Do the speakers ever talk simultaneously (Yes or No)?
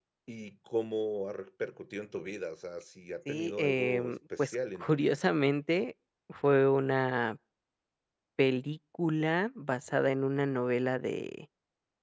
Yes